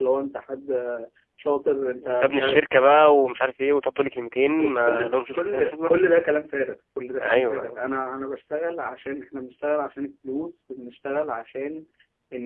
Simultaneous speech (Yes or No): Yes